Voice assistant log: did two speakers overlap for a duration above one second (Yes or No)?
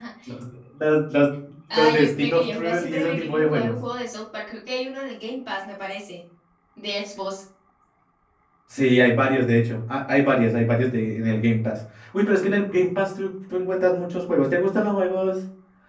Yes